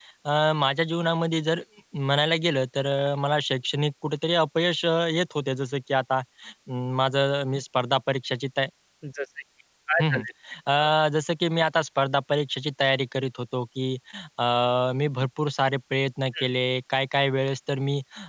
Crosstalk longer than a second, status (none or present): none